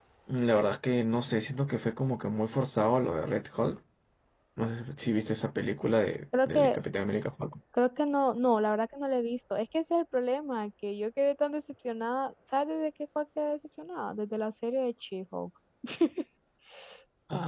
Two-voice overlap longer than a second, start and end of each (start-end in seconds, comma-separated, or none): none